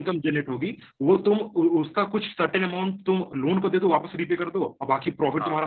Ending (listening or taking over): listening